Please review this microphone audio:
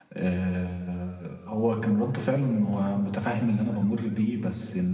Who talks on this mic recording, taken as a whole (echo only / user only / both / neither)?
user only